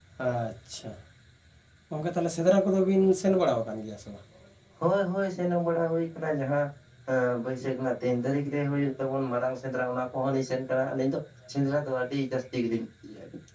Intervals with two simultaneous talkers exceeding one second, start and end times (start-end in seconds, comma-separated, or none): none